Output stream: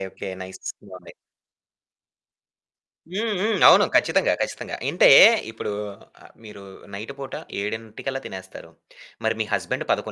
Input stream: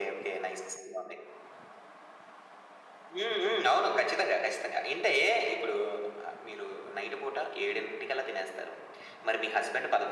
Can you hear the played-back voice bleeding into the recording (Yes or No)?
Yes